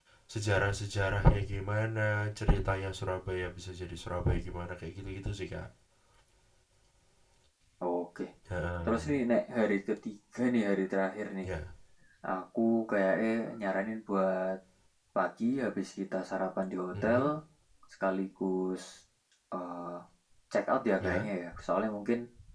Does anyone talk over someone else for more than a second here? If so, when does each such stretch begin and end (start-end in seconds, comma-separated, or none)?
none